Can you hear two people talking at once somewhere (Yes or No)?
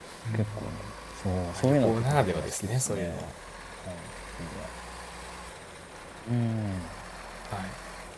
Yes